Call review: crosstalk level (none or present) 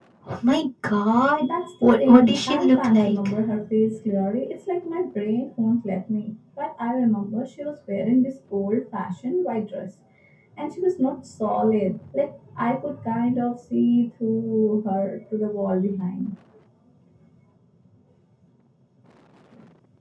present